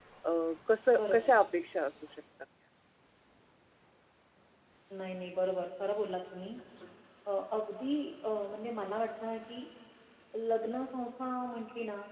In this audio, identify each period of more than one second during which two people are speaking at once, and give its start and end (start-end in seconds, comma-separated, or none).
none